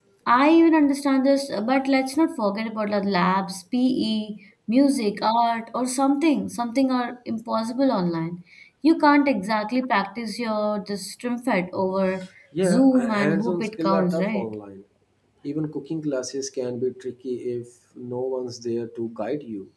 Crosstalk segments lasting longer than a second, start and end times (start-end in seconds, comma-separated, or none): 12.6-14.5